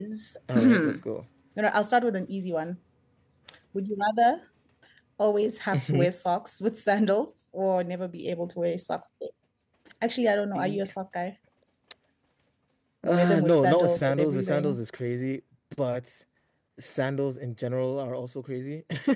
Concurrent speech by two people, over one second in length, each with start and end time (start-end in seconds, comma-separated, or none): 13.0-14.8